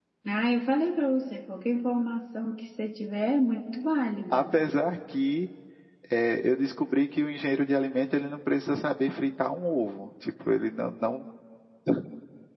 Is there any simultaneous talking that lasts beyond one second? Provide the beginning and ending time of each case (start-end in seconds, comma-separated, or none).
none